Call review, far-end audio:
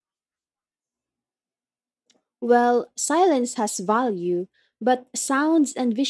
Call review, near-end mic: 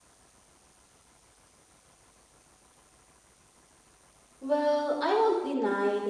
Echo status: none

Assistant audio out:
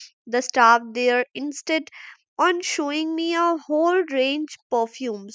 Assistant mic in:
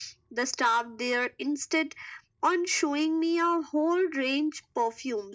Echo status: present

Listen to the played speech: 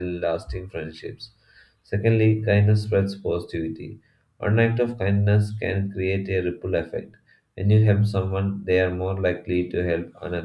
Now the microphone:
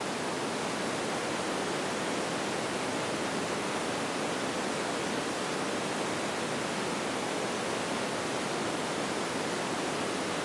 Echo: none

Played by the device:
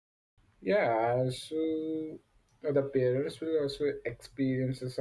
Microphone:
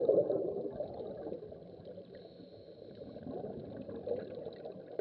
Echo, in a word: none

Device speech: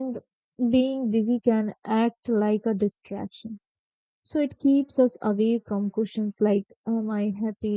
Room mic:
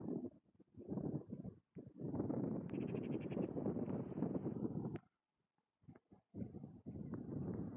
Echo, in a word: none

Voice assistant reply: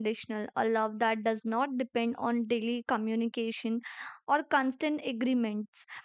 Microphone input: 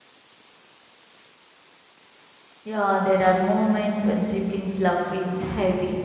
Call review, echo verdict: none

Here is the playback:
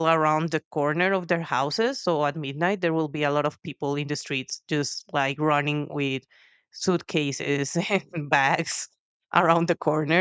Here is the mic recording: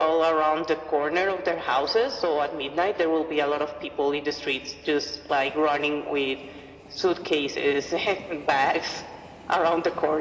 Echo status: present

